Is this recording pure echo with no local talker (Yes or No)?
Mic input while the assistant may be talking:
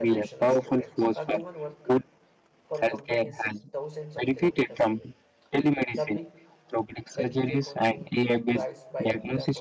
No